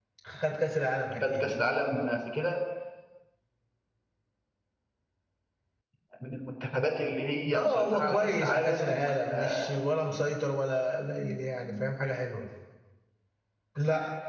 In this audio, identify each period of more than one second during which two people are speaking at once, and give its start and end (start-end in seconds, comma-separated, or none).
7.5-9.7